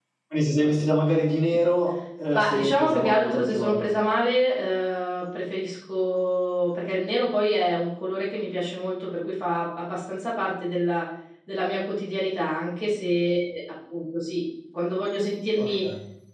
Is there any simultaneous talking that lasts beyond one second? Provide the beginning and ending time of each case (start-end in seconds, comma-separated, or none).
2.3-3.9